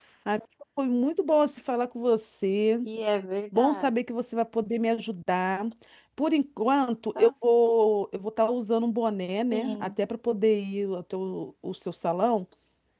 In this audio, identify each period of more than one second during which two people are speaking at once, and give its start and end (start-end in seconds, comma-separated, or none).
none